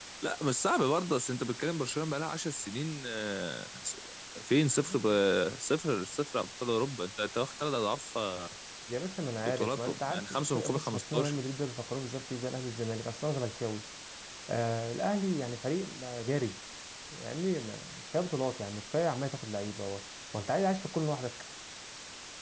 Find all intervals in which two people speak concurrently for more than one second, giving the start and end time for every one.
9.4-11.4

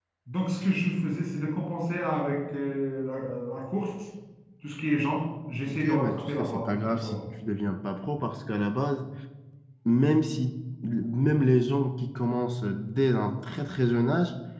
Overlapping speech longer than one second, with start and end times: 5.7-7.2

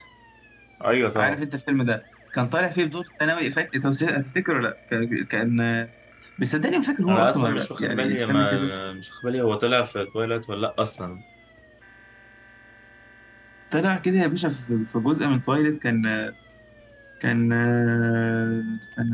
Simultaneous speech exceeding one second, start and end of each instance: 7.1-8.7

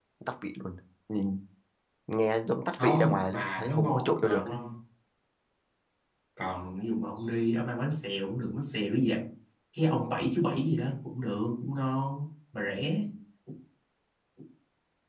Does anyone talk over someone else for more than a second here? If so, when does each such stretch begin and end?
2.8-4.6

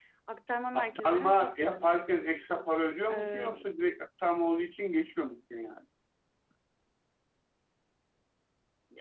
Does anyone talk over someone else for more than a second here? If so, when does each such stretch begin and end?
0.7-1.9

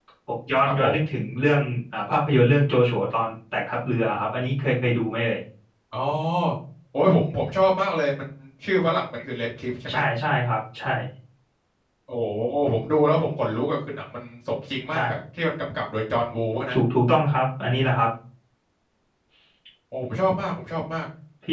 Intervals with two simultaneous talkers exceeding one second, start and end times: none

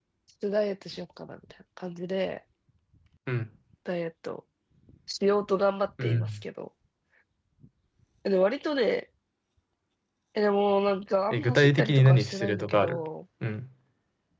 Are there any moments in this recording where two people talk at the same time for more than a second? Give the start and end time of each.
11.3-13.0

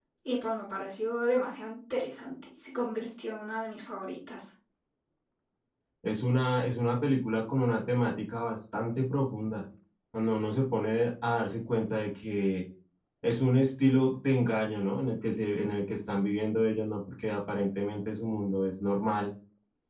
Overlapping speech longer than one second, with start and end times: none

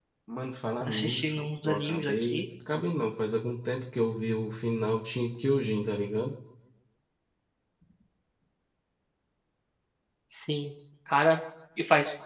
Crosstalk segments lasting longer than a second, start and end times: 0.8-2.4

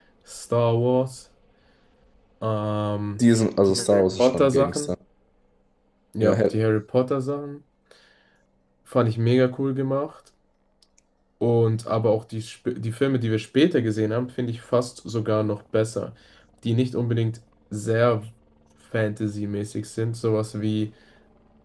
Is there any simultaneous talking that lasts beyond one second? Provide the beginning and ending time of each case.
3.7-4.9

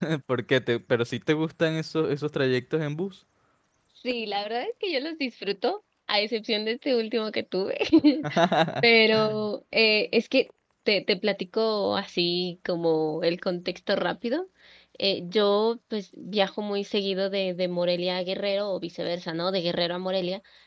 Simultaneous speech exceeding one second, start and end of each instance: none

